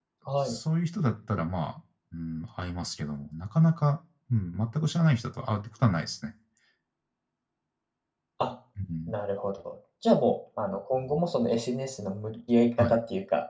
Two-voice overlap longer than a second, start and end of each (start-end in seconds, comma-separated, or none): none